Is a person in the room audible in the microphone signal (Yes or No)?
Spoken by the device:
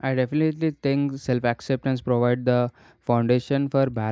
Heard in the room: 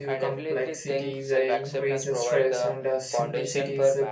Yes